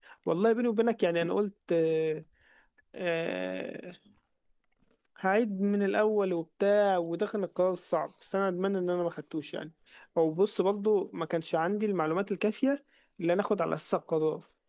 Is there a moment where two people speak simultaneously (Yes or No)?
No